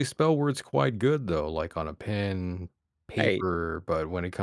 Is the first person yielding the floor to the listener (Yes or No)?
No